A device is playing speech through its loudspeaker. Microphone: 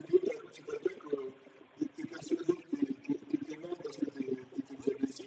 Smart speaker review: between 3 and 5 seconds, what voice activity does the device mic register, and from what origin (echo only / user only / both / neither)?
echo only